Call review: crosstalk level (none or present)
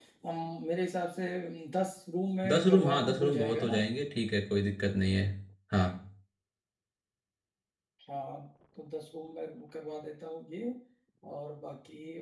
present